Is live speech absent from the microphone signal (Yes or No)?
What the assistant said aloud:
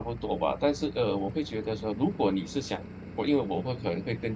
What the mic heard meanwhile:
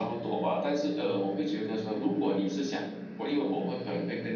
Yes